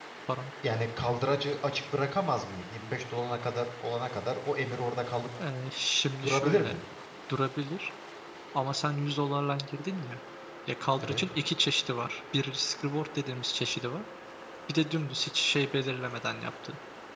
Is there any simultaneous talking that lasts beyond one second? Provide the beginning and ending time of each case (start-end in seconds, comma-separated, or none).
none